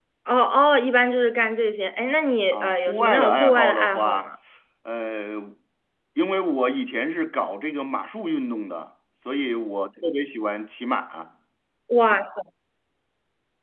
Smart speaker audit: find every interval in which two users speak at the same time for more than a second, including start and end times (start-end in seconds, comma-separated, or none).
2.5-4.3